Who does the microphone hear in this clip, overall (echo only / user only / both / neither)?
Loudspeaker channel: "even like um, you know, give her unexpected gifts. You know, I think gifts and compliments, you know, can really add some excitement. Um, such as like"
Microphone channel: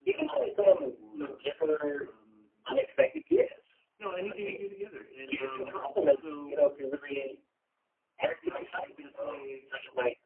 both